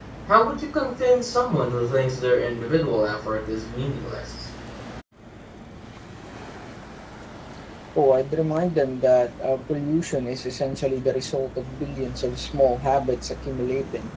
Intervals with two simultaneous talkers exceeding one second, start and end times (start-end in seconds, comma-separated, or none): none